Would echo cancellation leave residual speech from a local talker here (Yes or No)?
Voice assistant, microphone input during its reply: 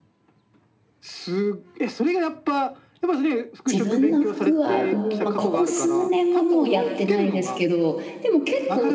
Yes